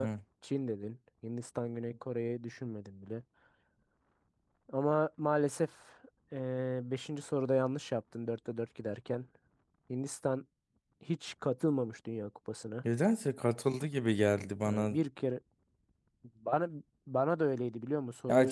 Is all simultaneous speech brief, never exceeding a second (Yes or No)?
Yes